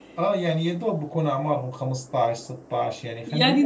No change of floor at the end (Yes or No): No